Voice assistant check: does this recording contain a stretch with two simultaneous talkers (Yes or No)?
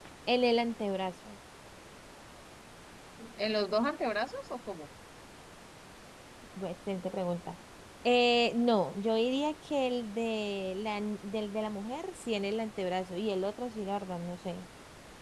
No